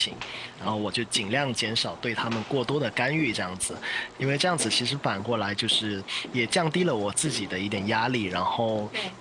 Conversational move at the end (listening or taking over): listening